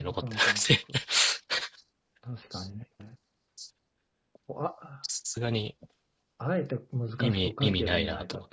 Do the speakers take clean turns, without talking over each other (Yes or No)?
No